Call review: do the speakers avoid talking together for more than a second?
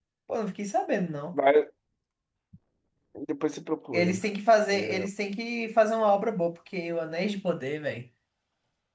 Yes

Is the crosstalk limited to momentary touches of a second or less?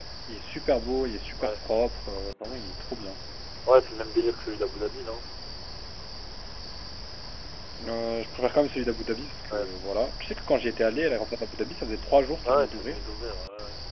Yes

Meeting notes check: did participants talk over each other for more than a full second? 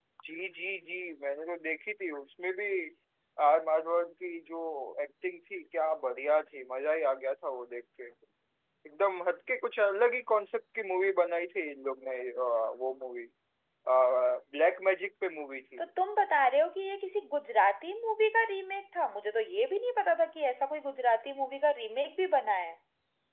No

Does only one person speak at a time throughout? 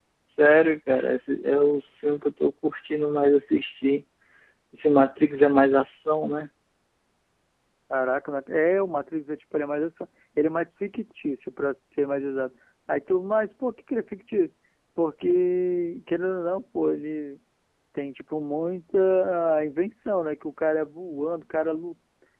Yes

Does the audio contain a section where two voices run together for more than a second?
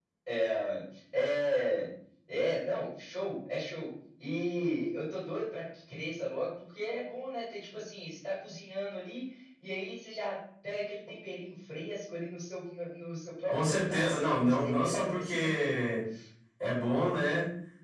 Yes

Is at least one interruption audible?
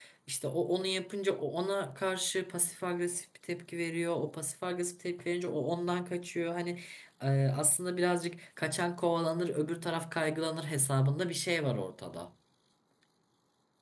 No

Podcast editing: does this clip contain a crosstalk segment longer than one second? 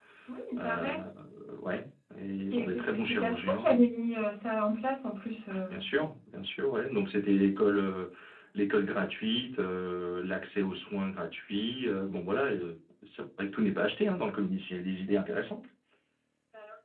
Yes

